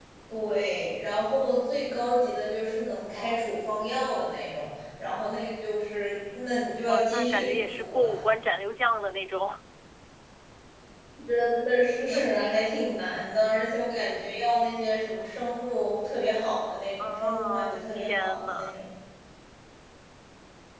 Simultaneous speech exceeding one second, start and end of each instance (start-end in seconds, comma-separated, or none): 6.8-8.2, 17.0-18.7